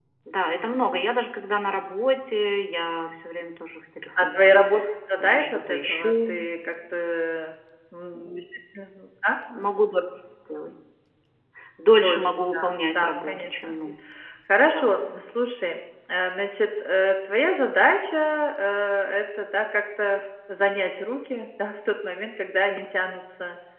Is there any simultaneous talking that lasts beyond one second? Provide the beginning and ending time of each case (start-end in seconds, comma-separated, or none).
5.2-6.5, 11.9-13.8